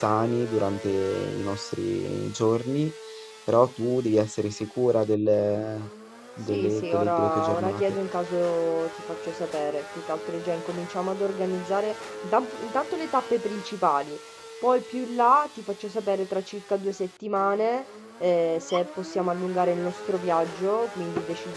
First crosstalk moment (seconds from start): 6 s

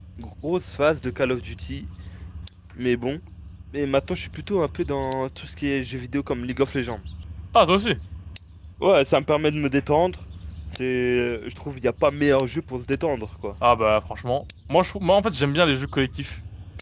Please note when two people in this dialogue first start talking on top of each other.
none

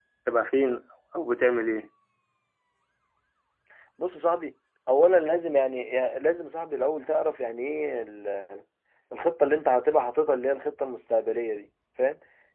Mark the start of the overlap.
none

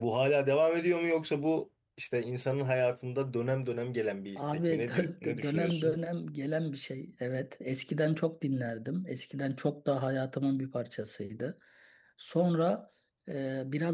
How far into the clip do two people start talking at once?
4 s

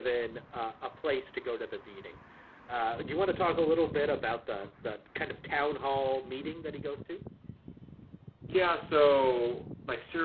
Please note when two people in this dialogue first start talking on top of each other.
none

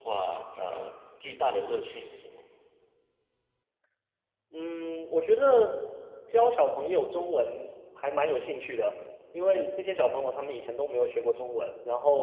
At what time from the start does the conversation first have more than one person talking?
none

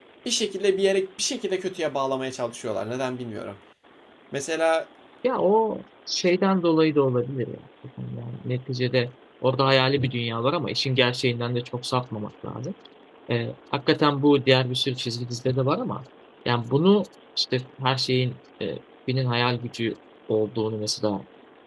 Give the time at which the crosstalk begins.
none

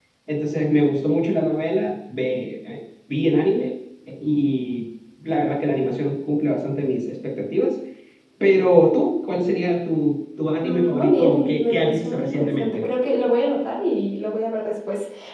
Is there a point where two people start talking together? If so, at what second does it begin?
11 s

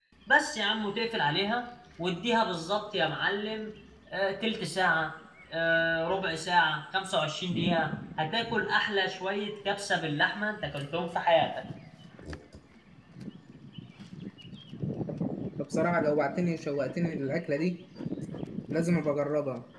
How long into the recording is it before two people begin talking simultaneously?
none

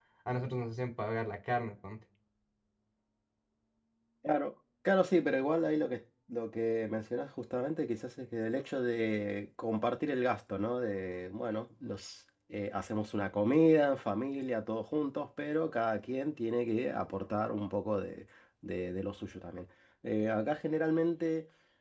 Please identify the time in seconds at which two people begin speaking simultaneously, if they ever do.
none

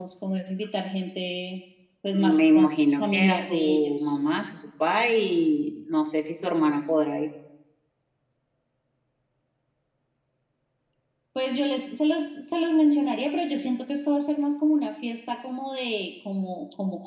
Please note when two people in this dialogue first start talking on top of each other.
2 s

